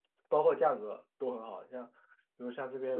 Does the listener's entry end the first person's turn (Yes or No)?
No